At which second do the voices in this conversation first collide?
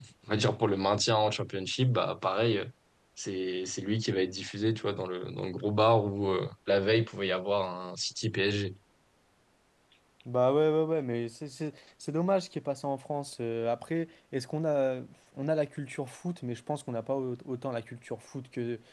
none

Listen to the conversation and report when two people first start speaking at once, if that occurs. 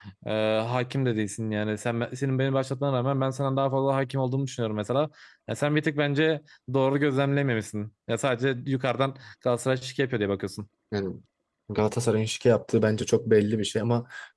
none

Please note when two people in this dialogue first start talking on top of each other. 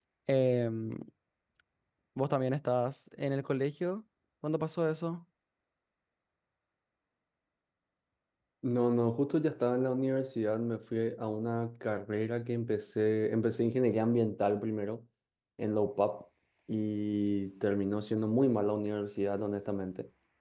none

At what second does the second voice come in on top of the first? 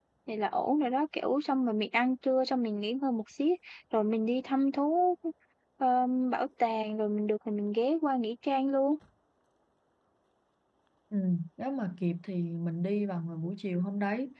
none

